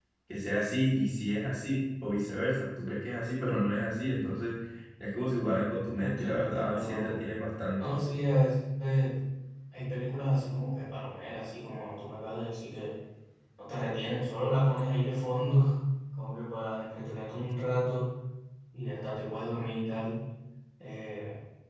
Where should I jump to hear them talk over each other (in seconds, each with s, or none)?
5.9 s